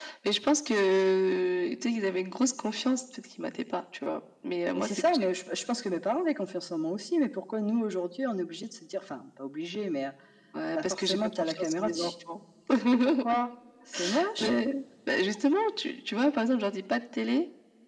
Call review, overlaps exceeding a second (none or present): present